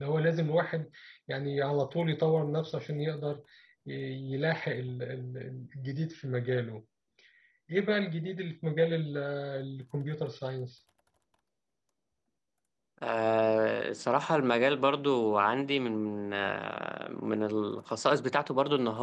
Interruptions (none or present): none